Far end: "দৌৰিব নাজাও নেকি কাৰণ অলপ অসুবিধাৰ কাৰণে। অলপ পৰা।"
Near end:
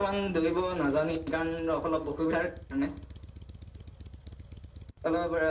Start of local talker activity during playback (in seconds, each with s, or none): none